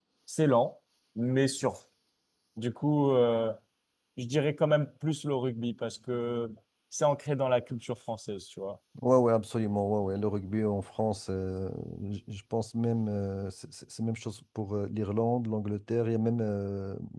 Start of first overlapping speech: none

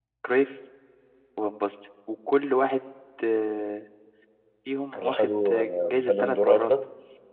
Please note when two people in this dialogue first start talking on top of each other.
4.9 s

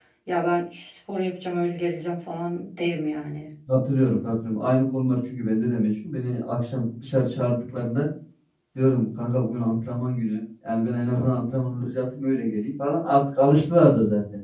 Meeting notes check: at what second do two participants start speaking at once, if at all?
none

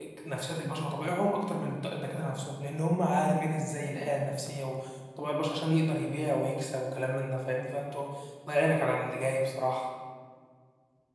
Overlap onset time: none

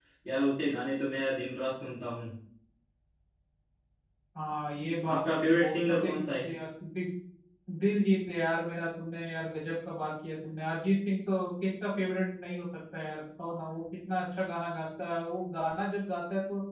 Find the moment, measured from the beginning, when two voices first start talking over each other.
5.1 s

